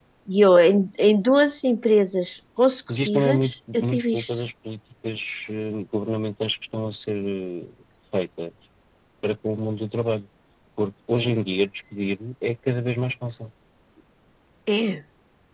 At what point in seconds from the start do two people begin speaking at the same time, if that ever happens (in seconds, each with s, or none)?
3.0 s